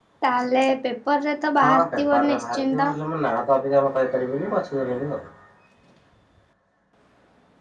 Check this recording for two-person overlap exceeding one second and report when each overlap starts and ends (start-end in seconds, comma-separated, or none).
1.6-2.9